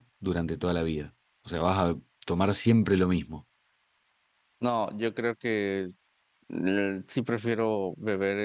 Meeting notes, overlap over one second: none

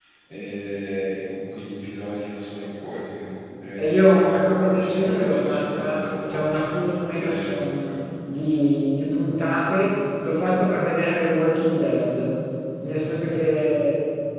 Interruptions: present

